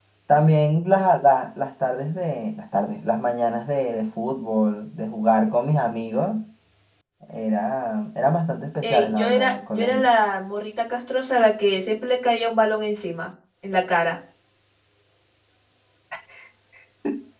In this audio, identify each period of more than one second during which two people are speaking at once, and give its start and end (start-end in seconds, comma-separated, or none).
8.8-10.1